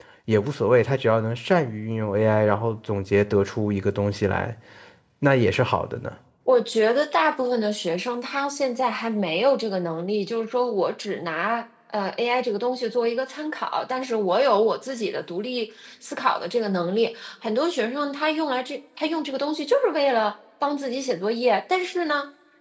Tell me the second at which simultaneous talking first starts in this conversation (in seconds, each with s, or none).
none